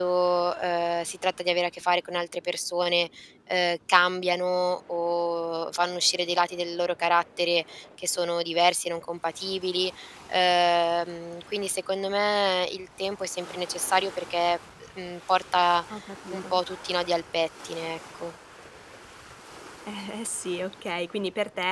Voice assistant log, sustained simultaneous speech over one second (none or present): none